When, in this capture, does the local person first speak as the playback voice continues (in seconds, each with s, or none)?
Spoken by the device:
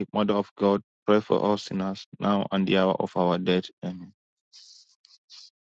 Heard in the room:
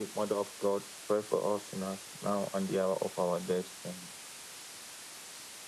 none